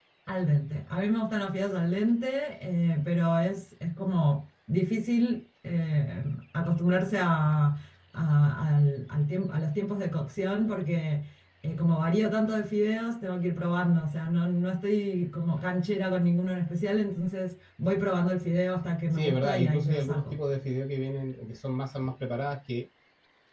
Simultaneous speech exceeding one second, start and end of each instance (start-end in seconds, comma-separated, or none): 19.1-20.4